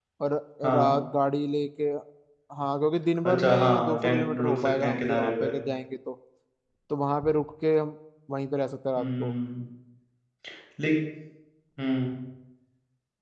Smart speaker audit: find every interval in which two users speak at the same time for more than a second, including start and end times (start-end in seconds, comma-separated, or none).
3.2-5.5